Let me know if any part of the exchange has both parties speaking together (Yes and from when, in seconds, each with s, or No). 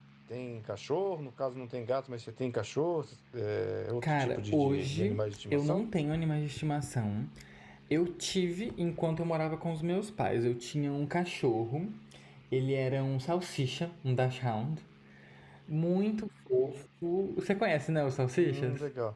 Yes, from 4.0 s